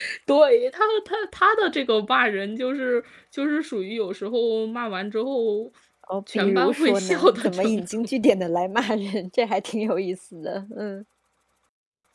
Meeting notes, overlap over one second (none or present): present